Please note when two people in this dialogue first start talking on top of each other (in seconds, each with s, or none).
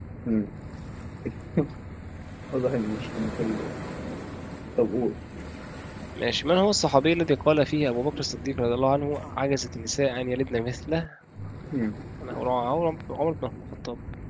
none